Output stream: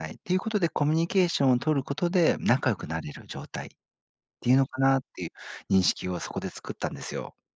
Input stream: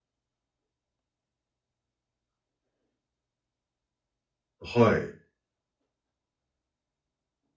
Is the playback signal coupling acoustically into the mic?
No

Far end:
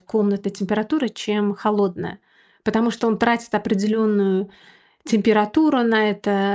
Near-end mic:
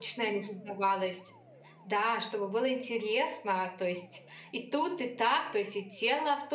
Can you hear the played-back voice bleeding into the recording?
No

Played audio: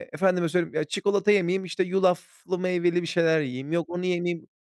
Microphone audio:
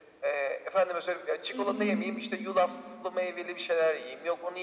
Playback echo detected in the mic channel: Yes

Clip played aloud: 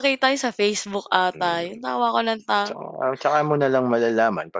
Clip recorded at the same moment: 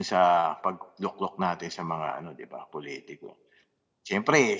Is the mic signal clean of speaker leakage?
Yes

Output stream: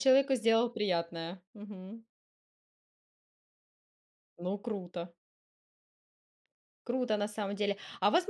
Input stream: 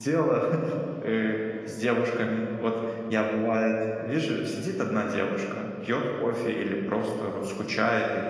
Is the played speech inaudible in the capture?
Yes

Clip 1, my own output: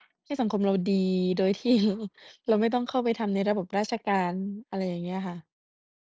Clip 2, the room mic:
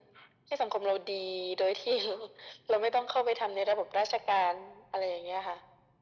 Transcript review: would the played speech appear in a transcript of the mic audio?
Yes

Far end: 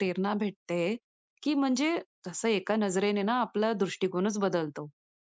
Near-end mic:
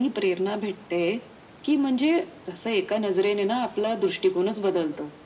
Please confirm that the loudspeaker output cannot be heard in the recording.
No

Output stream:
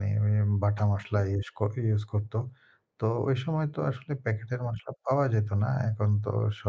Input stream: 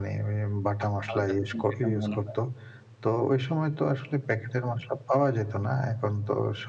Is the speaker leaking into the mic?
Yes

